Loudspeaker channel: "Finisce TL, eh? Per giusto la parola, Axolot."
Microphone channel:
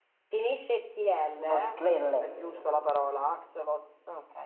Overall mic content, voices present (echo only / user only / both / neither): both